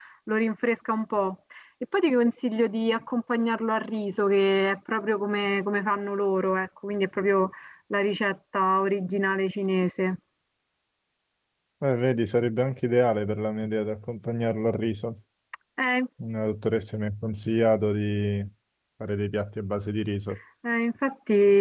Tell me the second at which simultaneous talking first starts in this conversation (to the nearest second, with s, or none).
none